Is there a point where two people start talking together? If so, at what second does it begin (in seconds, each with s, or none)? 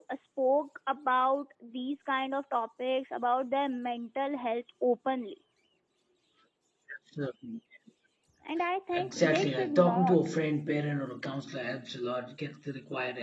8.9 s